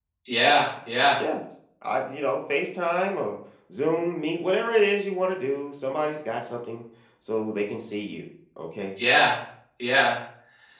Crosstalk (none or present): none